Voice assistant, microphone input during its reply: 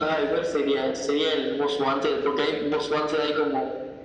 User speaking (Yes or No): No